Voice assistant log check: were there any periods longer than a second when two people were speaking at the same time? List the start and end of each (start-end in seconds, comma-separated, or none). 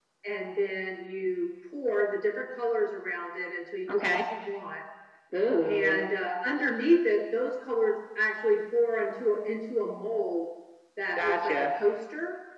none